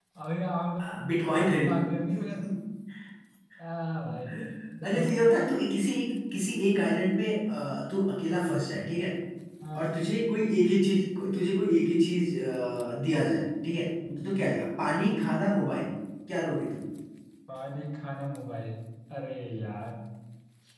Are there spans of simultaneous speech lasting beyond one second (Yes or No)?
No